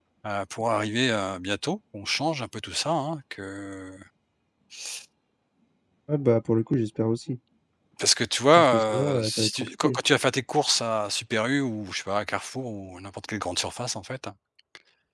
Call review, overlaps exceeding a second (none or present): present